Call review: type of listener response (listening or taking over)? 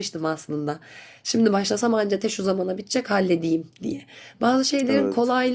listening